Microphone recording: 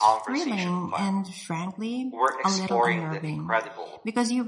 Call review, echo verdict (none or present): present